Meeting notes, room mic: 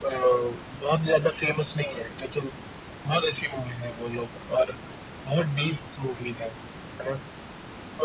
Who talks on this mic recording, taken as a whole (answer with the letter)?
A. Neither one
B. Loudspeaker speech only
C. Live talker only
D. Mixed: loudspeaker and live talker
B